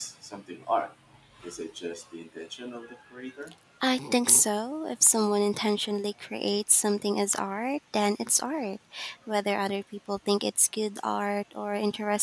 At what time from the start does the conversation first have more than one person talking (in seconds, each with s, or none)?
none